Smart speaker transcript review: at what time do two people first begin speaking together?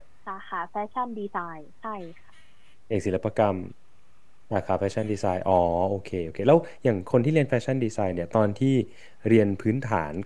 none

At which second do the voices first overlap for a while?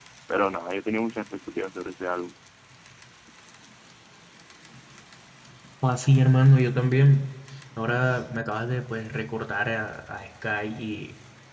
none

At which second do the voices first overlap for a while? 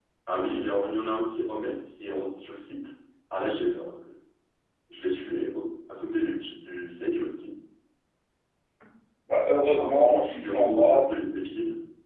9.8 s

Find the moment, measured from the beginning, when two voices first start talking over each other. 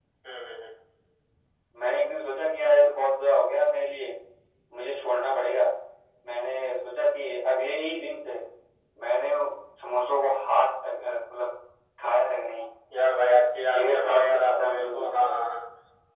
13.7 s

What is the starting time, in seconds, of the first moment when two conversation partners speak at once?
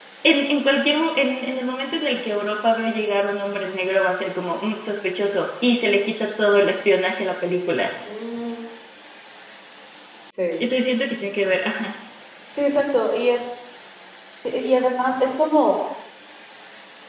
none

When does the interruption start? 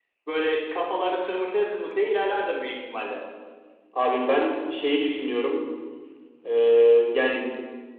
none

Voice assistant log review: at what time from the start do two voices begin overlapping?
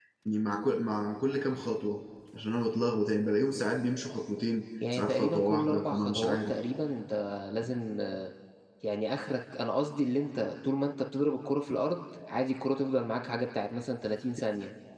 4.8 s

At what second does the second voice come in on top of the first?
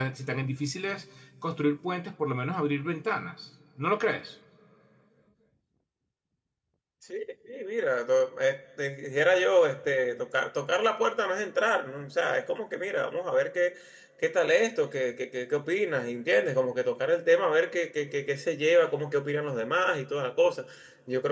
none

